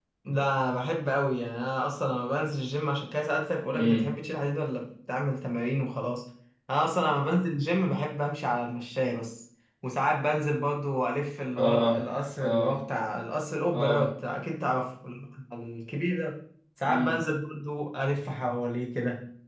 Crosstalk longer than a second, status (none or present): none